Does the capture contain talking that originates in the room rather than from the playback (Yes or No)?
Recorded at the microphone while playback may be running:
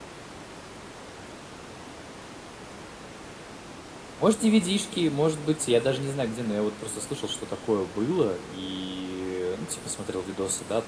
Yes